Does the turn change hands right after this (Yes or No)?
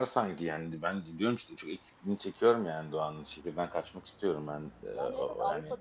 Yes